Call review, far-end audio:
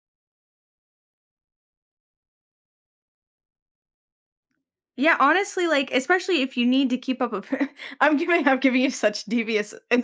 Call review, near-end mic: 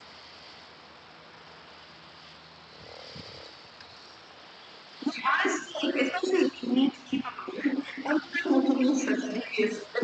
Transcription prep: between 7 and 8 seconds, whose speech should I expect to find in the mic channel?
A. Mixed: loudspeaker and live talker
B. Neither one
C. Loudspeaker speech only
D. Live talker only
C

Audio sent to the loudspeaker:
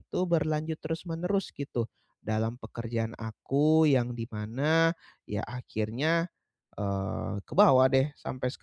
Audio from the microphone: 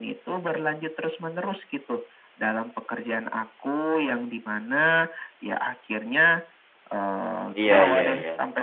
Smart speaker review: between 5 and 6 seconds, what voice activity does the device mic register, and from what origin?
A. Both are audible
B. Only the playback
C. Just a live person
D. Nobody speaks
B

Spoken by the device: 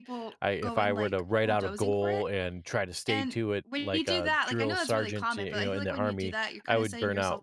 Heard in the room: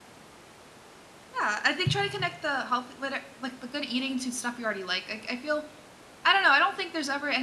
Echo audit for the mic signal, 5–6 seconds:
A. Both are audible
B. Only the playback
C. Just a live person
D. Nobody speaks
C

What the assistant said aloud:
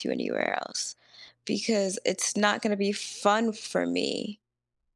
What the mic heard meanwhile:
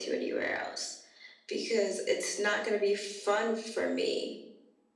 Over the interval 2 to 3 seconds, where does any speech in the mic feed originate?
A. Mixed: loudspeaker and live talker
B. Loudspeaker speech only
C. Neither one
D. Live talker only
B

